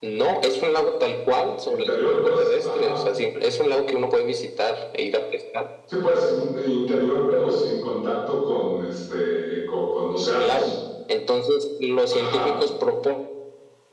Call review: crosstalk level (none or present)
present